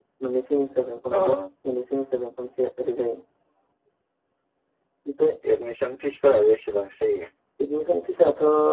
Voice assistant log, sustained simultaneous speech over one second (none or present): none